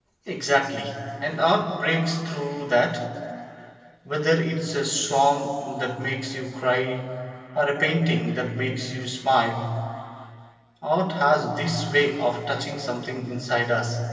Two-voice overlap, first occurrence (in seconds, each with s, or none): none